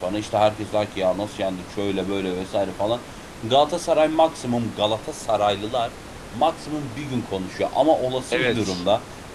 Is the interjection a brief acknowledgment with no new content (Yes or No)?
Yes